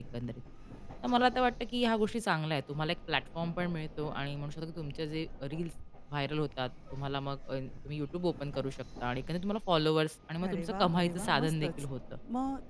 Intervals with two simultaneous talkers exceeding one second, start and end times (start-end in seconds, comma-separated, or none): 10.5-11.7